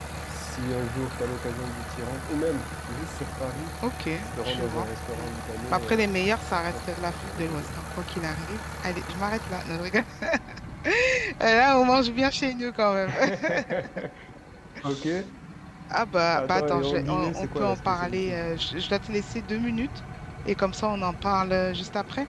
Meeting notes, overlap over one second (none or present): present